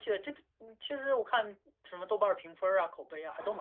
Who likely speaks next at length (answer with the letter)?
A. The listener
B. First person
A